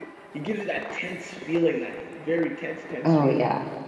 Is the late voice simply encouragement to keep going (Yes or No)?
No